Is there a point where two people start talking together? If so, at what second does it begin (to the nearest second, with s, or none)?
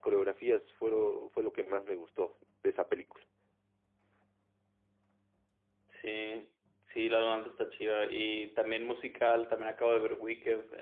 none